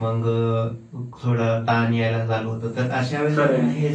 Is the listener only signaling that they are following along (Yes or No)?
Yes